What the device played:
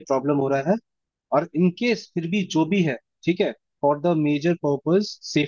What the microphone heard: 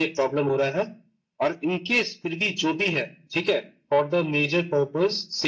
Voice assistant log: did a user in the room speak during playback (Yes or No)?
No